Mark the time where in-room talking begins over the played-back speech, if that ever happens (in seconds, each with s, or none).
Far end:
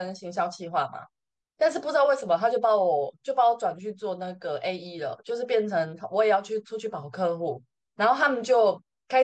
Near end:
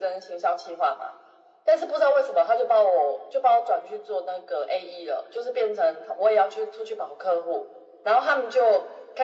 none